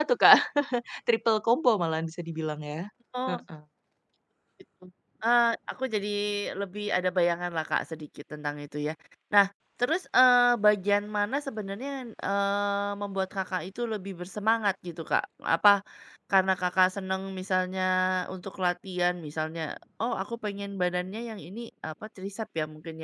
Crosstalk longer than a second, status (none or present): none